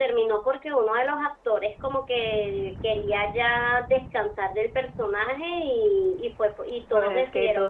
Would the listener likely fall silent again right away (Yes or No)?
No